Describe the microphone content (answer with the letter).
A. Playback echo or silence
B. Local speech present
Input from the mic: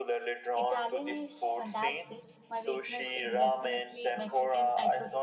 B